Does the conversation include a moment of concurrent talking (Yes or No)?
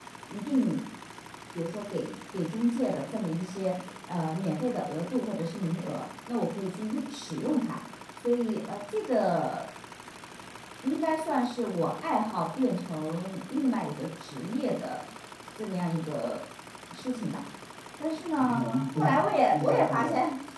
Yes